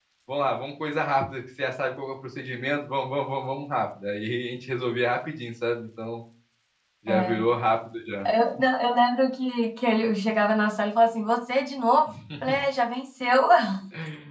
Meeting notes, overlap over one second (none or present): none